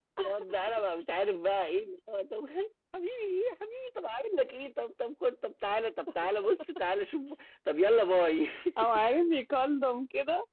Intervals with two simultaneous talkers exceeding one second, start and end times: none

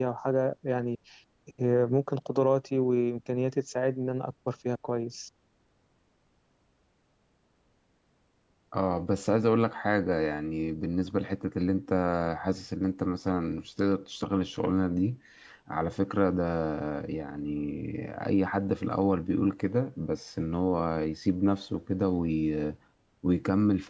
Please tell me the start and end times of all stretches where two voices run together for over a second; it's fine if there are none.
none

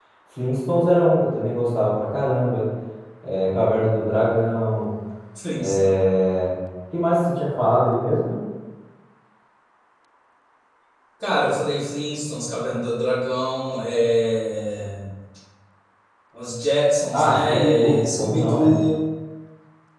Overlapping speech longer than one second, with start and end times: 17.1-18.7

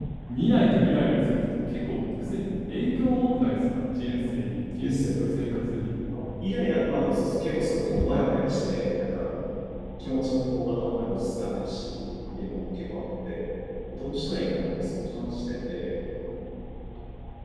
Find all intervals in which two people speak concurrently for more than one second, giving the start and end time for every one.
none

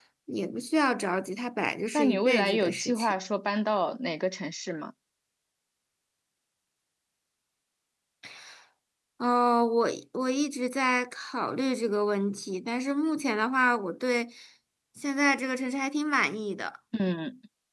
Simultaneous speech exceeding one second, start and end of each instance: 1.9-3.1

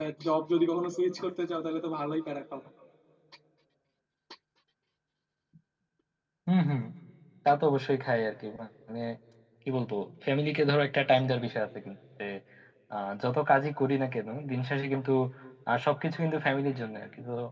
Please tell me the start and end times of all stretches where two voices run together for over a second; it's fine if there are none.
none

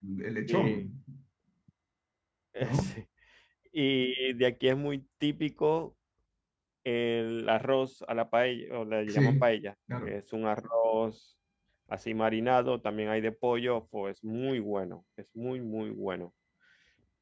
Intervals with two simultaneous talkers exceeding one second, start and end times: none

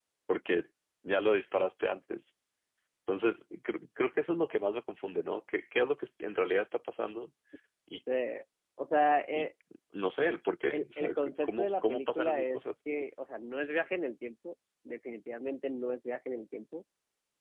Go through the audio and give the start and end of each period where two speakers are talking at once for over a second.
10.7-12.6

